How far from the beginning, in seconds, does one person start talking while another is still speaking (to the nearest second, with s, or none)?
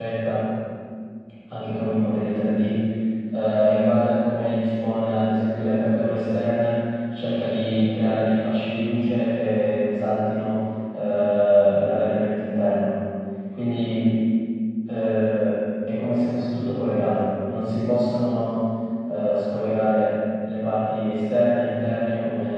none